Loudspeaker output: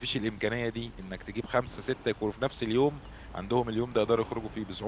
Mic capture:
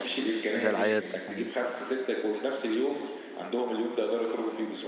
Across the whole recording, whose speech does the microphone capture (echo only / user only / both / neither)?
both